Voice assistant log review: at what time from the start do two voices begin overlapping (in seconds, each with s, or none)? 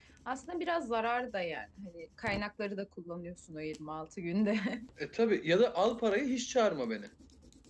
none